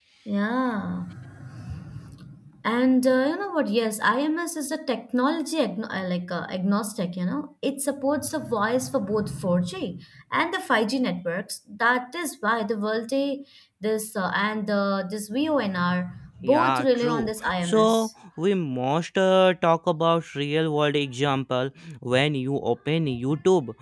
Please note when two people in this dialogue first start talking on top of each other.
16 s

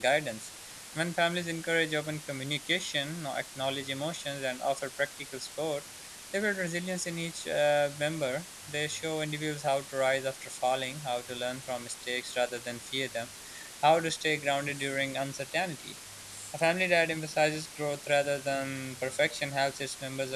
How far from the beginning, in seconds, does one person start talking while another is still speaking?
none

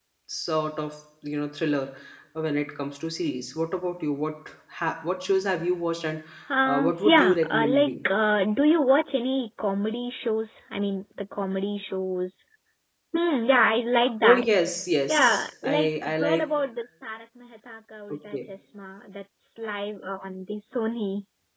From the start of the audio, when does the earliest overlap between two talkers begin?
7 s

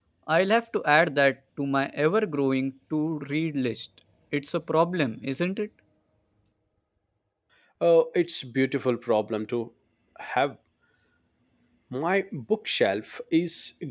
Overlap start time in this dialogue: none

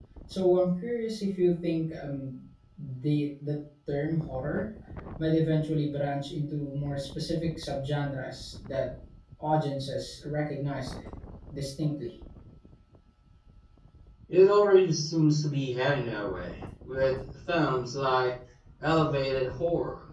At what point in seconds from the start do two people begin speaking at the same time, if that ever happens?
none

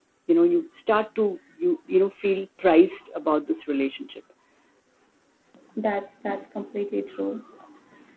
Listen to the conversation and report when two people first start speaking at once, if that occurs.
none

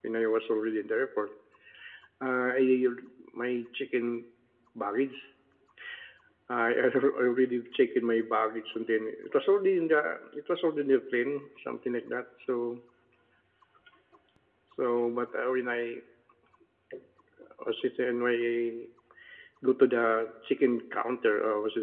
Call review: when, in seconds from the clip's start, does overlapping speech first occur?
none

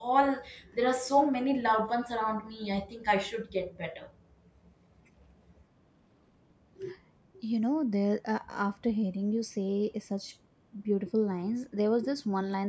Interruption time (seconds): none

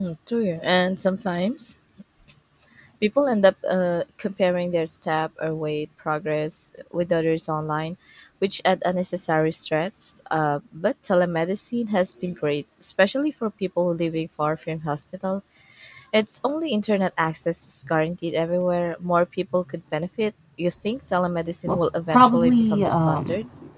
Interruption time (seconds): 22 s

